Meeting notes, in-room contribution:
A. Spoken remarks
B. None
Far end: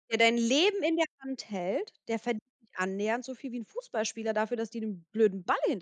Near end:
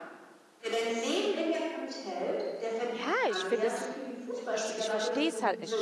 A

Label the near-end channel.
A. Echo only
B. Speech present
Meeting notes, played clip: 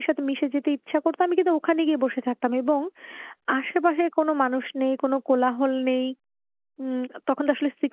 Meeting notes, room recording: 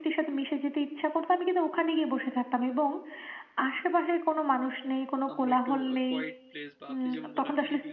B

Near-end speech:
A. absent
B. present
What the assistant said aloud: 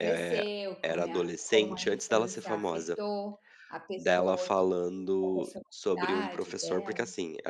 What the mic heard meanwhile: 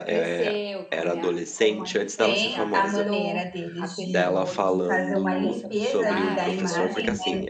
B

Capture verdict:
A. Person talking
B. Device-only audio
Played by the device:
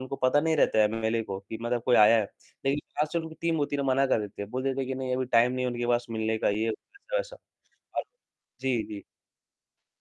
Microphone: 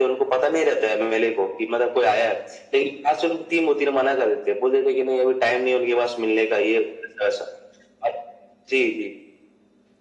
B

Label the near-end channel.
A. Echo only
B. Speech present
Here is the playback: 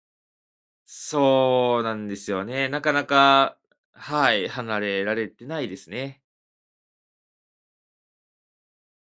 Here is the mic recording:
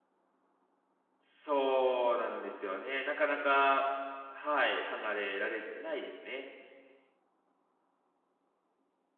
A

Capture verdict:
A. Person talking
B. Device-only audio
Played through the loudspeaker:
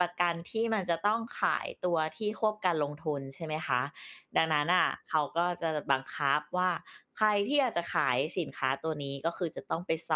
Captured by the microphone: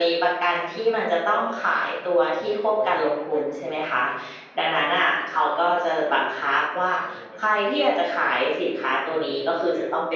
A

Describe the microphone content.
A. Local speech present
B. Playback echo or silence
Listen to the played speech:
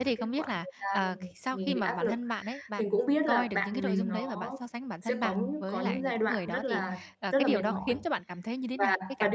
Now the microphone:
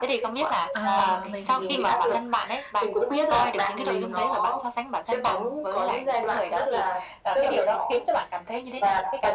A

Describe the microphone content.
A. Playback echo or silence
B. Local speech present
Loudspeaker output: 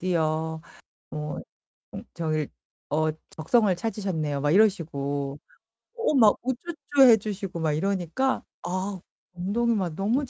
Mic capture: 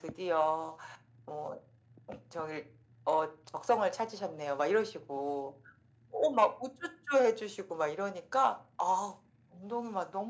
A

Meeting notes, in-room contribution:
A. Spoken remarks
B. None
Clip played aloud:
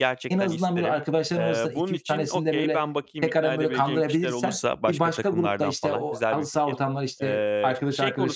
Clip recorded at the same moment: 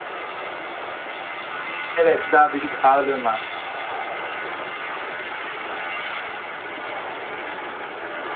A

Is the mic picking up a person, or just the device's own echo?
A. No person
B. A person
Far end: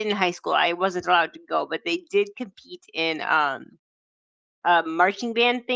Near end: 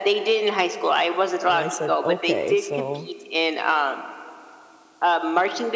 B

